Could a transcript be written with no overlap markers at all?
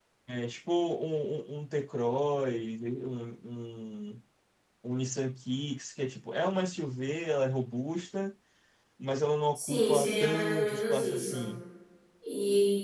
No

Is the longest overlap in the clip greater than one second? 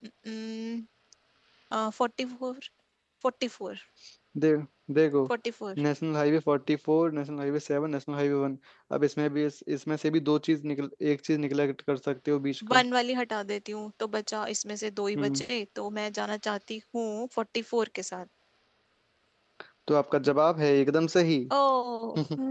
No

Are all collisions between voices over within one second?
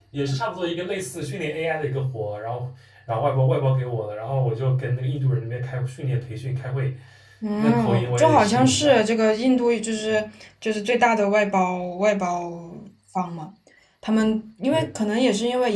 No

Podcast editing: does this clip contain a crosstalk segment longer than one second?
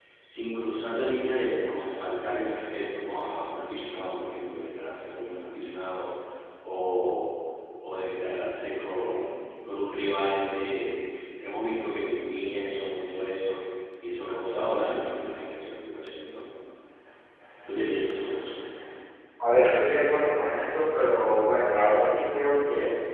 No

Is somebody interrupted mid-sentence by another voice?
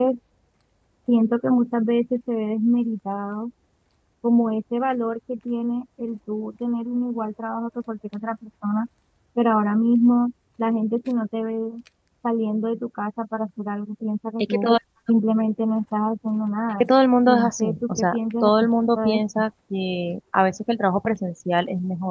Yes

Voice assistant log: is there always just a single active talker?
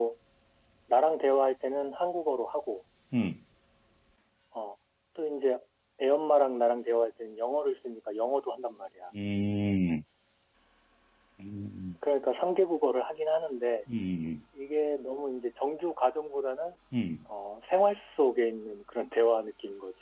Yes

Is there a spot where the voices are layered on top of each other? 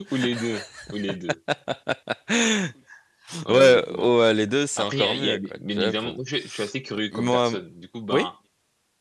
Yes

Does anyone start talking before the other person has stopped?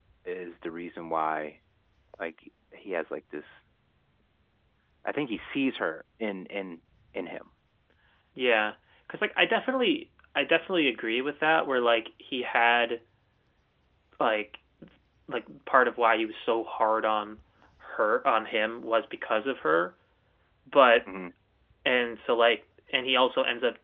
No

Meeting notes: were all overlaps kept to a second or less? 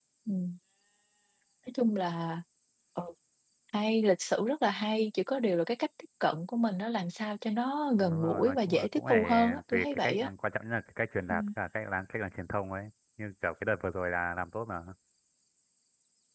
No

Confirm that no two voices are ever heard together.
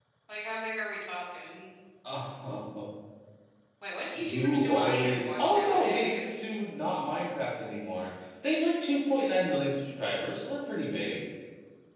No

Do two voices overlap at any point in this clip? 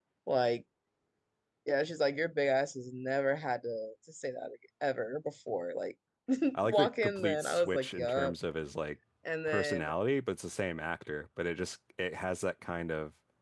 Yes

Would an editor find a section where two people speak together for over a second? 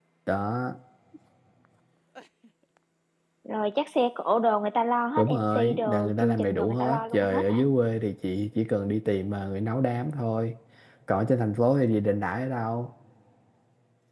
Yes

